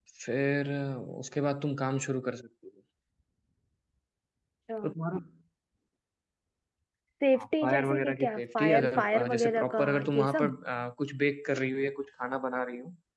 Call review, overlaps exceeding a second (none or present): present